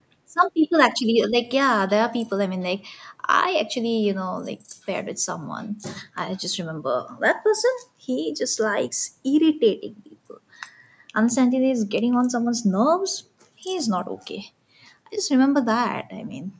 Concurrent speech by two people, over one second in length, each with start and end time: none

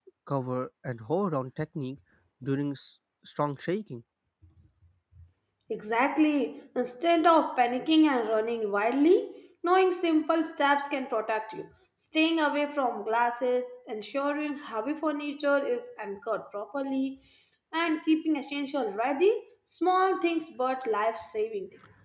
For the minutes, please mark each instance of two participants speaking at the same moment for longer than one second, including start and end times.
none

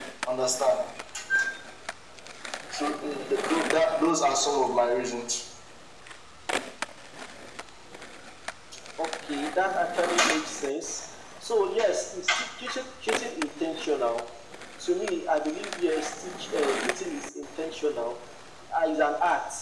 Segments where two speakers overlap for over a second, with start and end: none

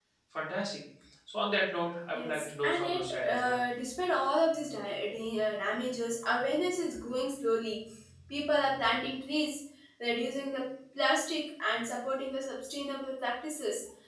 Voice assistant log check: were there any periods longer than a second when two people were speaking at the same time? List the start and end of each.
2.1-3.6

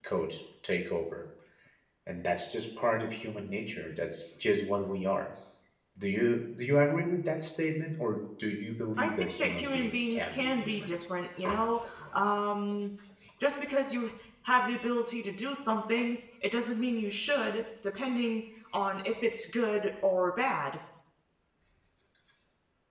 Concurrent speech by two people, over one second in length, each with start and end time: 9.0-10.9

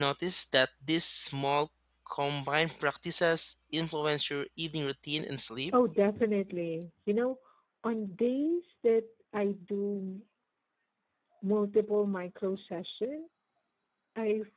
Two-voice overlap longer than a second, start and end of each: none

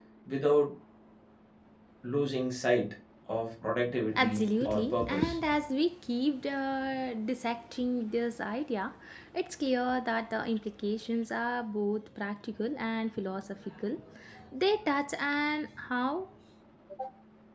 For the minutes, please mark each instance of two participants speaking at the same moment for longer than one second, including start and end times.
4.2-5.4

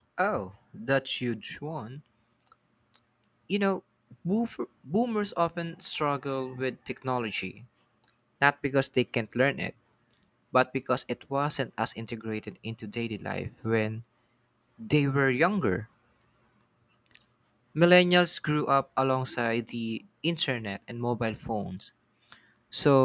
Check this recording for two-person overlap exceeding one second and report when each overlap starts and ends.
none

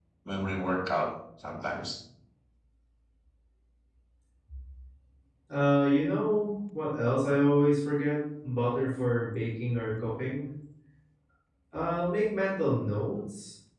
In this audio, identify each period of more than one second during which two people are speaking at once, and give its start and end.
none

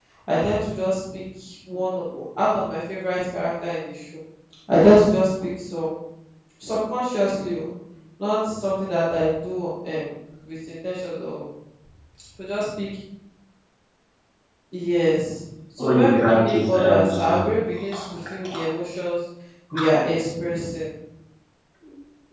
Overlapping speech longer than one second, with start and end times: 15.8-17.4

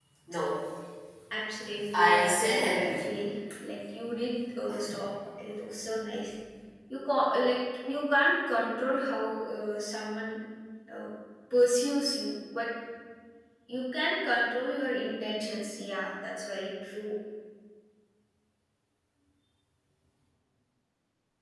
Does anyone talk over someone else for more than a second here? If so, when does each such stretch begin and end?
1.9-3.2

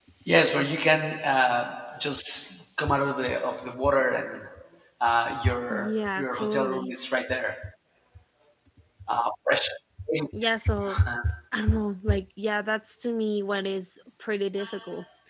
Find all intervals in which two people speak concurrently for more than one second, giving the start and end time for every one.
5.7-6.9

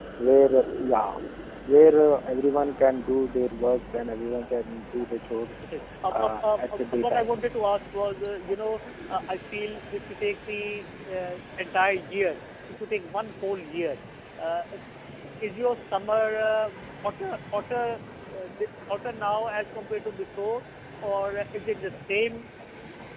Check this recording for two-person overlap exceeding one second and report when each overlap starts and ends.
6.1-7.3

